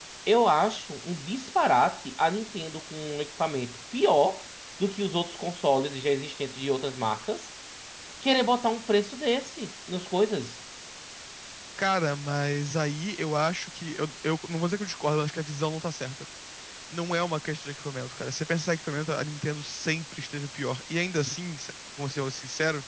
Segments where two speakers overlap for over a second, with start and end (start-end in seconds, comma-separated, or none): none